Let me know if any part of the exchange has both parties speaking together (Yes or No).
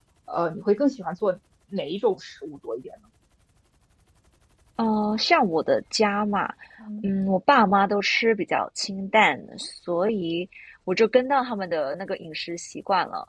No